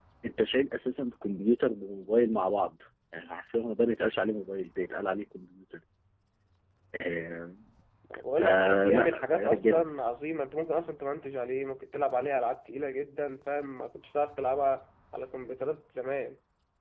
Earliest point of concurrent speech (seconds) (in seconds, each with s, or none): 8.4 s